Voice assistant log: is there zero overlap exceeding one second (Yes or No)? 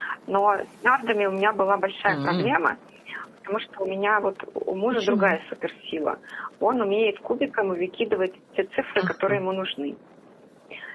Yes